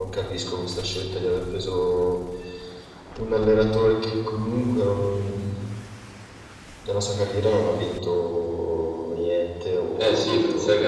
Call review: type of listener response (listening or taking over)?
taking over